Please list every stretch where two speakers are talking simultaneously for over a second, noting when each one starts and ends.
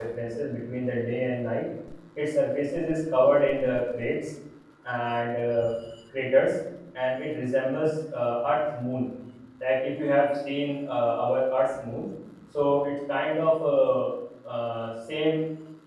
none

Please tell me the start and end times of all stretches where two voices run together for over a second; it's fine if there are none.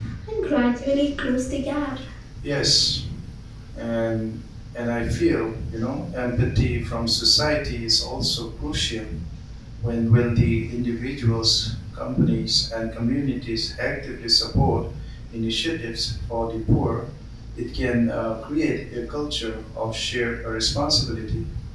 none

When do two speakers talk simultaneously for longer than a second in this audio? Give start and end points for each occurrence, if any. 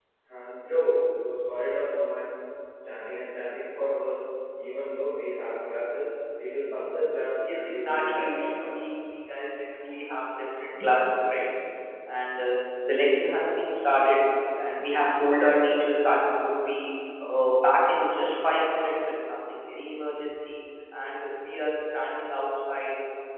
7.5-8.7

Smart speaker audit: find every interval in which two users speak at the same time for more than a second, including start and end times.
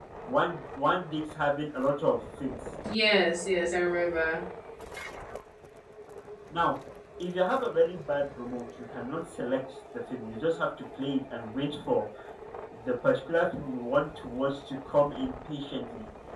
none

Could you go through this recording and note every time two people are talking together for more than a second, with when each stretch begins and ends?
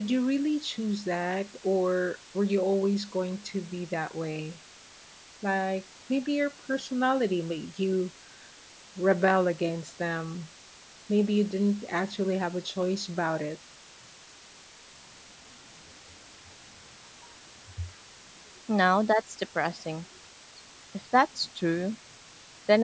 none

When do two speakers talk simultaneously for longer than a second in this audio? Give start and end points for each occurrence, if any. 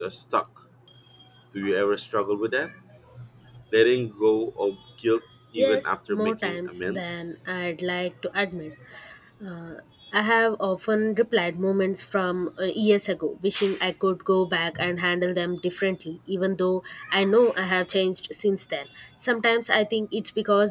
5.6-7.2

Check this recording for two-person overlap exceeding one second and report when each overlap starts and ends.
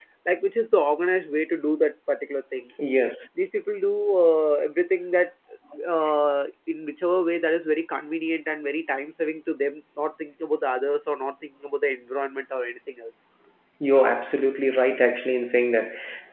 none

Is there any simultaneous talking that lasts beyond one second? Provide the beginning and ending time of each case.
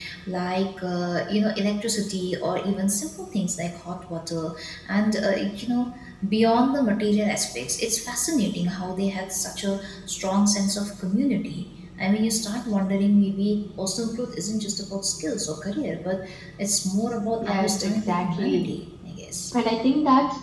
17.4-18.7

